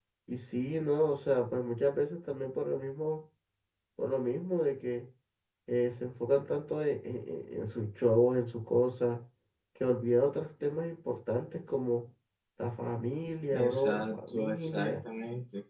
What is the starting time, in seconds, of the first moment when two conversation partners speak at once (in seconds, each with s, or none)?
13.5 s